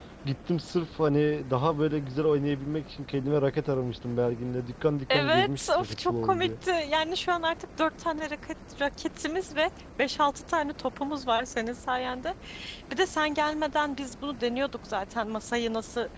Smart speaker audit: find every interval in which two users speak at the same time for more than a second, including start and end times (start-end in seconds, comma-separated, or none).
5.1-6.5